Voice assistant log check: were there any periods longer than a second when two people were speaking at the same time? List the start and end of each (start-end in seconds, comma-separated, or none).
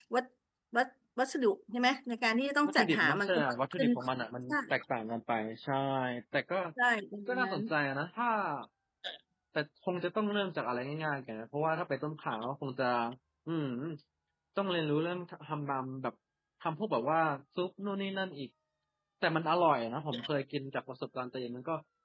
2.6-3.9